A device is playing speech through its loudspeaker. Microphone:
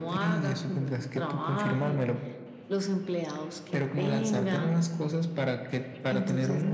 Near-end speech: none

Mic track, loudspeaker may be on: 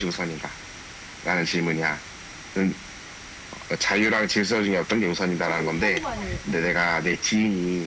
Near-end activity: present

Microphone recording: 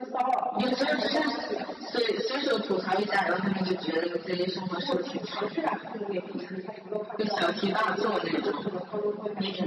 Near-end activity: none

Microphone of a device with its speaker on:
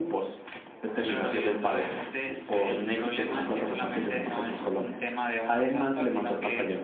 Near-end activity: none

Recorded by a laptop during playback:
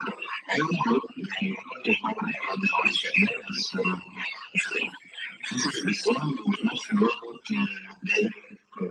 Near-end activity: none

